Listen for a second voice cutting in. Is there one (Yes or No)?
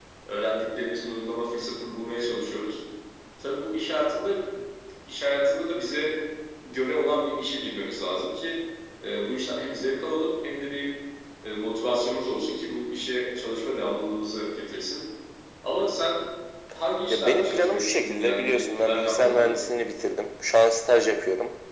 Yes